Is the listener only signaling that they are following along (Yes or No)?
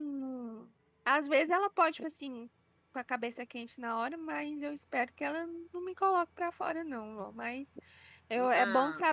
Yes